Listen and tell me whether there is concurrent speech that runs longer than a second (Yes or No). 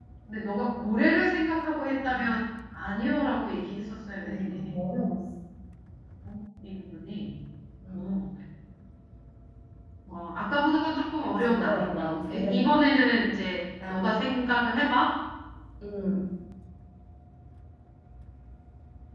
Yes